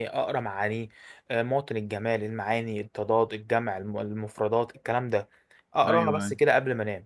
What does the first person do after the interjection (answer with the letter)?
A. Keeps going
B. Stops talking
A